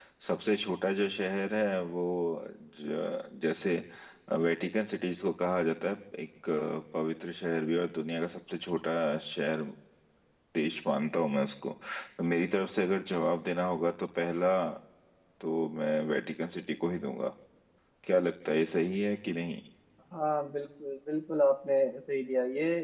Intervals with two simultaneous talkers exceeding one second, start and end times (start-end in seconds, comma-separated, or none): none